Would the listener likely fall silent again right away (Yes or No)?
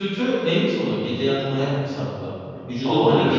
Yes